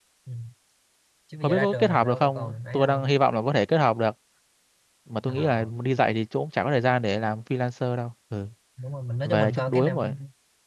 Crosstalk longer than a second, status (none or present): present